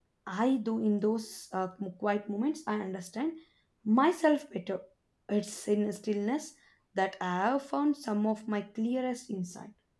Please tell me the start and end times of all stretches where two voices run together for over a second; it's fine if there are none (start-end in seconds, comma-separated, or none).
none